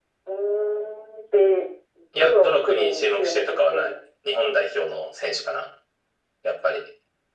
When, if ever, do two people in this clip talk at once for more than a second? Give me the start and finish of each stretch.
2.2-3.9

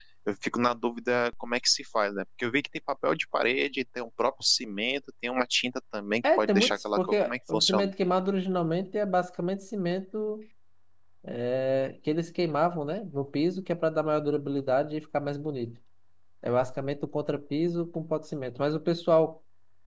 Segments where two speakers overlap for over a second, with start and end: 6.2-7.9

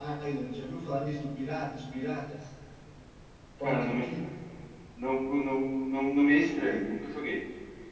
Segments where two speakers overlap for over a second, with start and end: none

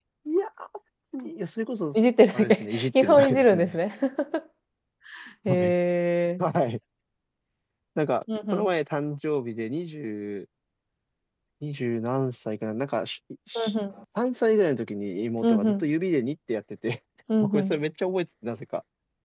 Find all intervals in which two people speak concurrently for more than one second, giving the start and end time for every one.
2.3-3.8

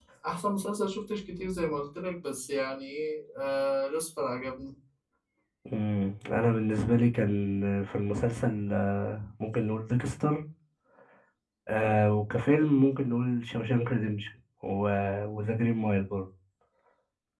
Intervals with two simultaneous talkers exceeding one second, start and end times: none

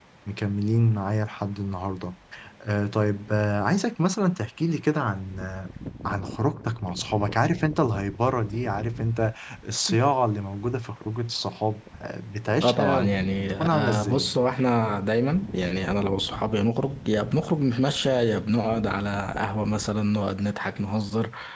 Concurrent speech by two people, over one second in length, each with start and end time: 12.6-14.3

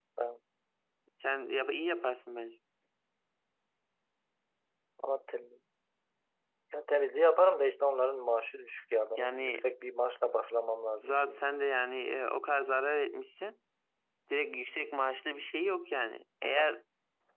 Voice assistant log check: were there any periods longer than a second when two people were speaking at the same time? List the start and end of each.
none

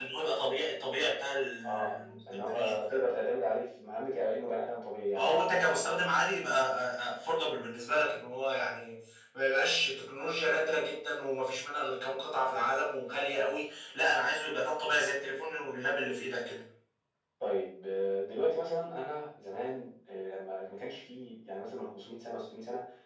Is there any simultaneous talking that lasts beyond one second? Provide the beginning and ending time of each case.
1.6-3.1

